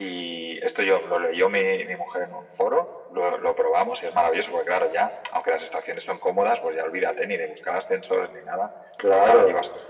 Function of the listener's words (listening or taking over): listening